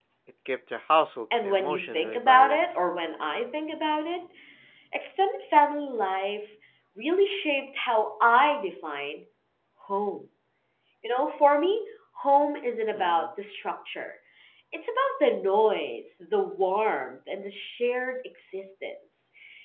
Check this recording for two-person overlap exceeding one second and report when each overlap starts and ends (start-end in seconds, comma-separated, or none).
1.4-2.8